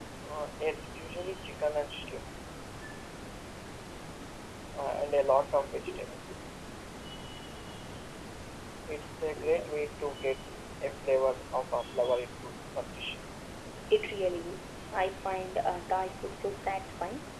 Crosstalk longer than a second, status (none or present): none